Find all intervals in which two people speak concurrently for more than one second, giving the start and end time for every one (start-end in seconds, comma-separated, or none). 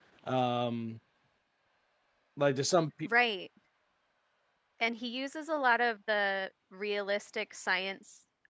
none